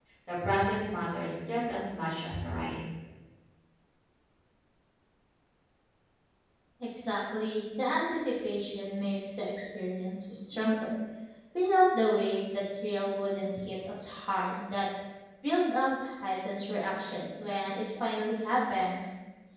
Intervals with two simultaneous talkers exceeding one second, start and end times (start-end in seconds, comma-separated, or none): none